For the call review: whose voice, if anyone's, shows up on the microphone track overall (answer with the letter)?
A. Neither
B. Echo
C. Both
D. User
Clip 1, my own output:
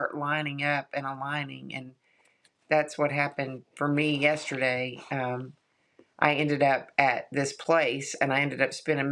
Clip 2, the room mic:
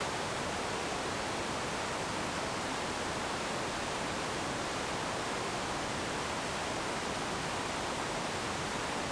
A